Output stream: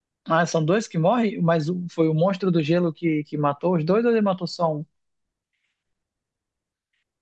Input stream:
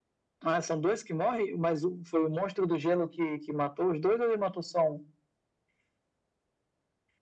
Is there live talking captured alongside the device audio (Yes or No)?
No